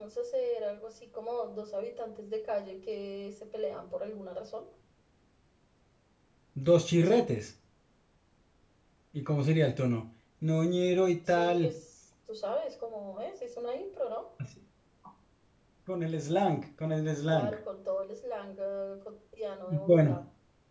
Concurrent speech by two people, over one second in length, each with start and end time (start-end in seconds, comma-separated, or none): none